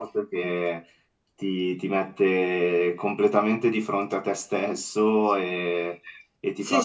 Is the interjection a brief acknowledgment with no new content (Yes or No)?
Yes